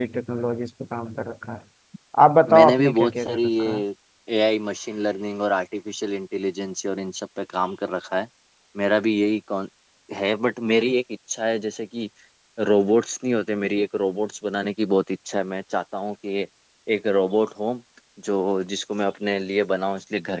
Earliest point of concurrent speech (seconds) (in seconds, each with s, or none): 2.5 s